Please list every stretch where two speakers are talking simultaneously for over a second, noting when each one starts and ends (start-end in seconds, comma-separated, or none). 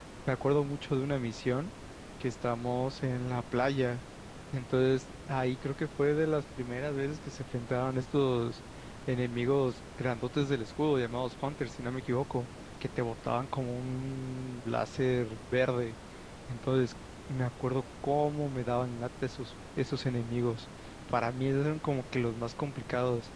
none